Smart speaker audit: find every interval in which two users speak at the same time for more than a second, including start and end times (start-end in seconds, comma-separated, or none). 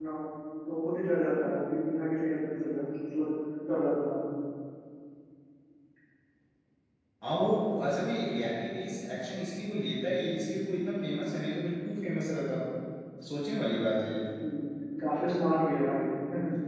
none